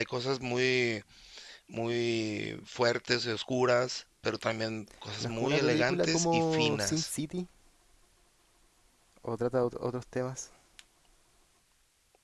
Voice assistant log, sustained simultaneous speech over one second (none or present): present